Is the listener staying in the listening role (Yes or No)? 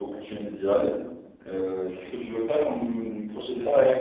No